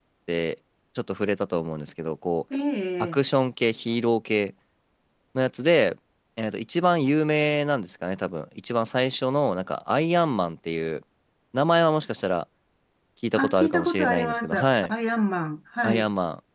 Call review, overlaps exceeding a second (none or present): present